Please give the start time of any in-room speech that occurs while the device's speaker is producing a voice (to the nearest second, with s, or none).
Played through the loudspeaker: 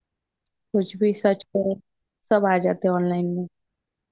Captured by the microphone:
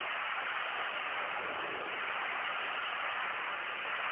none